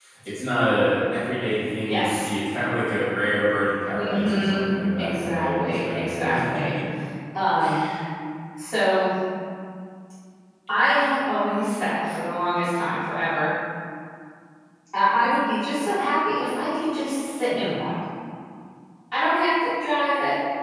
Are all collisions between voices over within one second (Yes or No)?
No